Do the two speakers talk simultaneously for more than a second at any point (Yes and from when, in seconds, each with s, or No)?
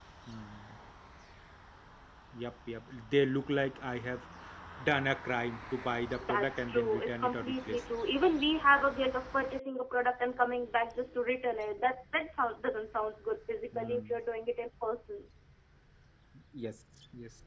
Yes, from 6.2 s